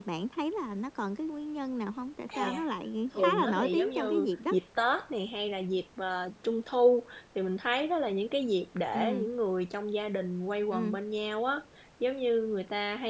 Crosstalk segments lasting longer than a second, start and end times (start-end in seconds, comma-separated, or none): 3.2-4.5